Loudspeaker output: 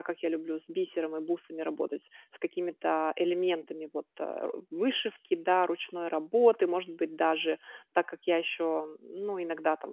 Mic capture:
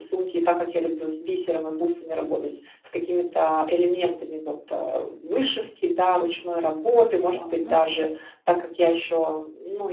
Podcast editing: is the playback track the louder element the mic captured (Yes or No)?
Yes